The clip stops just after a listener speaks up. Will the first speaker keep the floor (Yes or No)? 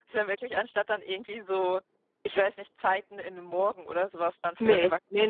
No